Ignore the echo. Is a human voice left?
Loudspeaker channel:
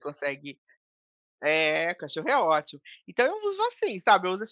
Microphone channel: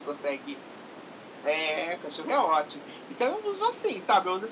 No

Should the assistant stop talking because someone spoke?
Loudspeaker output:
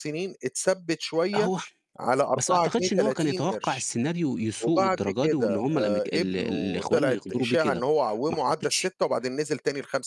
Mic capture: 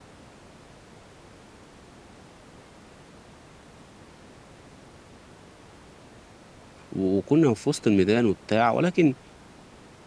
Yes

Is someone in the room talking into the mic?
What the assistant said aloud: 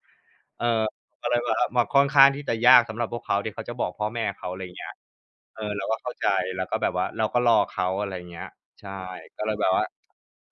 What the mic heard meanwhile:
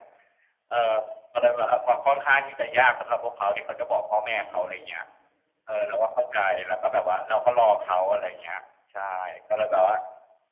Yes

